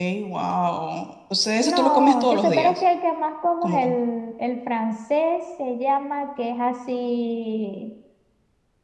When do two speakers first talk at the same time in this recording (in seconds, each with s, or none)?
1.6 s